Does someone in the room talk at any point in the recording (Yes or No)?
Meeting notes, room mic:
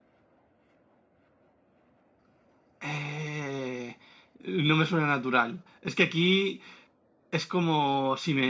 Yes